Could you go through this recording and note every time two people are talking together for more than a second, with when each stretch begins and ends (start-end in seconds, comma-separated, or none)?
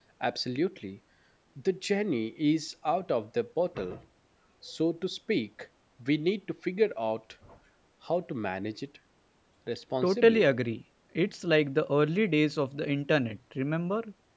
none